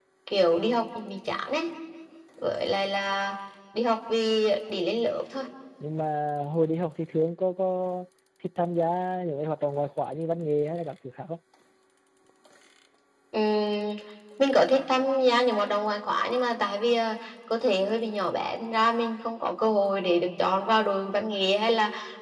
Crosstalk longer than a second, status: none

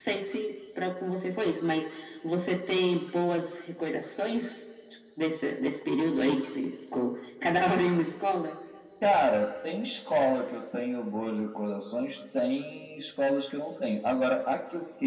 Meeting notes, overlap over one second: none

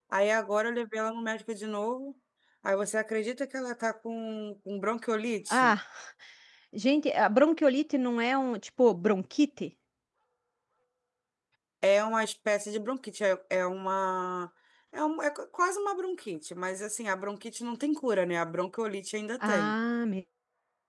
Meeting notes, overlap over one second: none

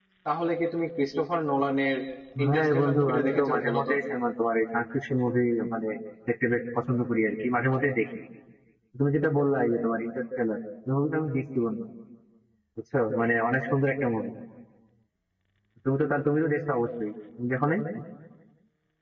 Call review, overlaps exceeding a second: present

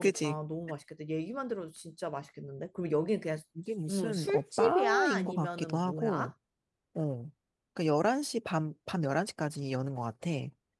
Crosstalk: present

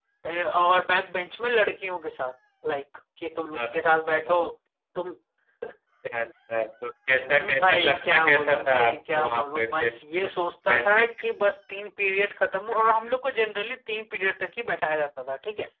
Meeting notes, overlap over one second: present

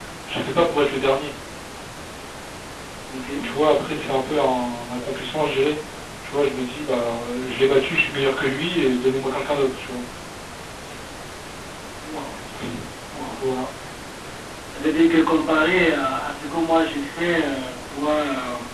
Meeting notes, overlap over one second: none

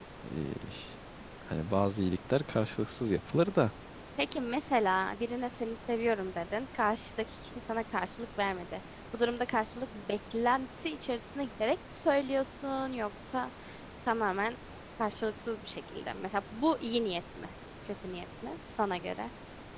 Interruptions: none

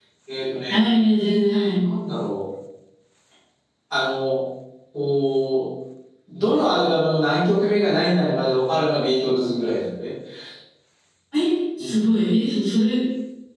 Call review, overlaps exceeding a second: none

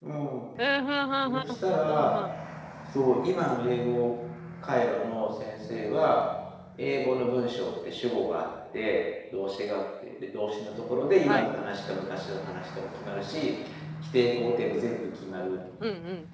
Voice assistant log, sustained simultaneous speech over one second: none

